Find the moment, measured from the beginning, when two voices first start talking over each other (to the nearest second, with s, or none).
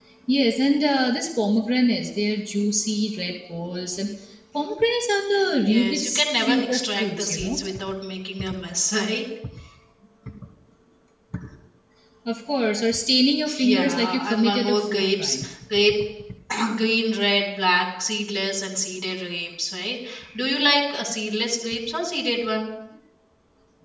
6 s